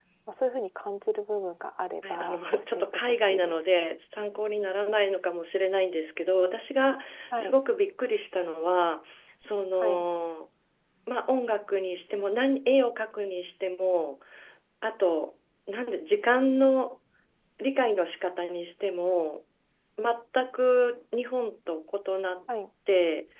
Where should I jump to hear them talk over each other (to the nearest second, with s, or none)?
2 s